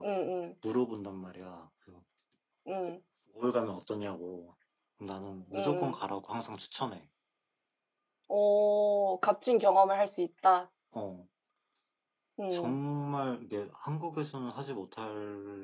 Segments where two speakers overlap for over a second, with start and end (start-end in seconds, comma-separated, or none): none